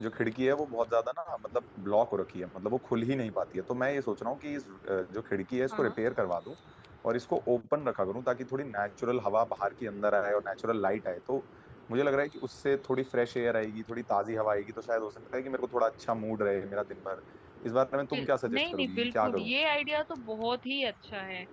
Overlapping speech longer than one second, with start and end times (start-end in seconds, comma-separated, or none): 18.1-19.5